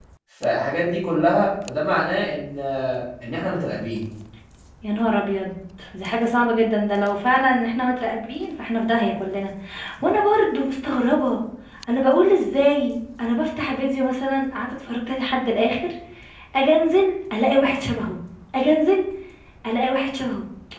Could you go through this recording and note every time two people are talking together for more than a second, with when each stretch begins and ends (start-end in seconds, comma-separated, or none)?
none